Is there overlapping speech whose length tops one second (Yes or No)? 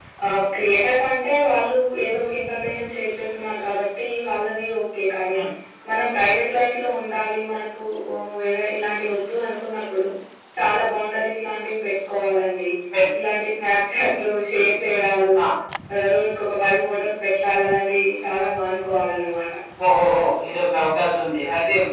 No